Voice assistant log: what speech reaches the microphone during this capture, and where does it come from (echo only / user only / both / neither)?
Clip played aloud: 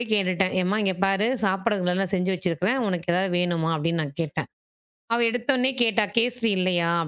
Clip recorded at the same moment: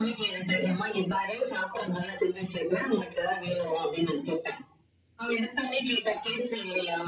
echo only